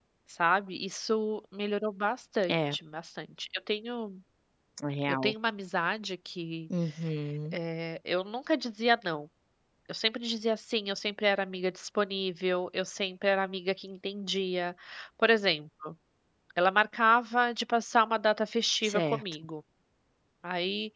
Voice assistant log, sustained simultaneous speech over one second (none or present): none